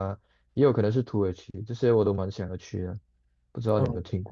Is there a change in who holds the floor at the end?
Yes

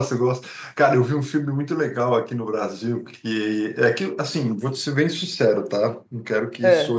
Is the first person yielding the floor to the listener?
No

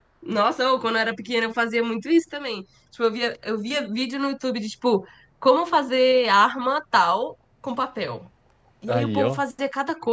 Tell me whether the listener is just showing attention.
Yes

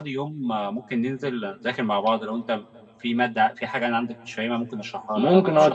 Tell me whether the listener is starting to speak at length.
Yes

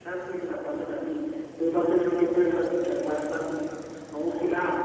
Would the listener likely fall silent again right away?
Yes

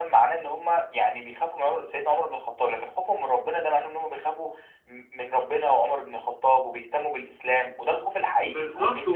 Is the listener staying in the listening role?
No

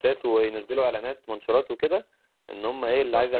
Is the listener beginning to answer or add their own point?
Yes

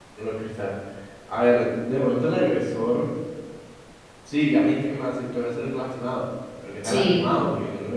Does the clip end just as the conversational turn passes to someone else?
No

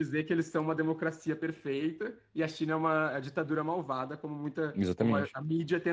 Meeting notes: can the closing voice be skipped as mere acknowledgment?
Yes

